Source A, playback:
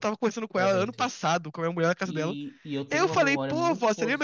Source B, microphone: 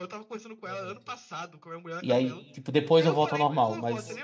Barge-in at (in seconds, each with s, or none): 2.0 s